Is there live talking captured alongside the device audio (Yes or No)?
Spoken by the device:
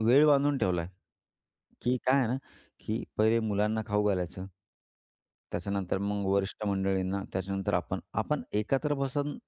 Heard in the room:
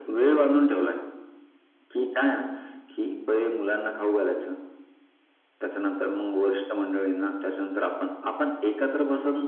No